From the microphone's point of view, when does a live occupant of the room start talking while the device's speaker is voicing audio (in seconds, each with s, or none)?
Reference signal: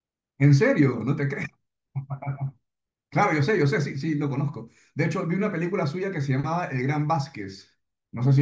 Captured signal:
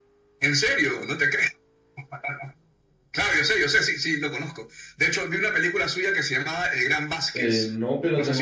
7.3 s